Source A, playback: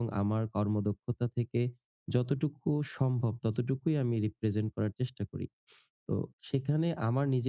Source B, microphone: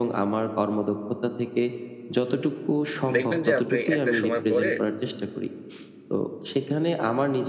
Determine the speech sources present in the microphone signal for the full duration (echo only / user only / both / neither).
both